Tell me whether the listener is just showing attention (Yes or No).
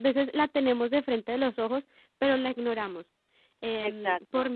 Yes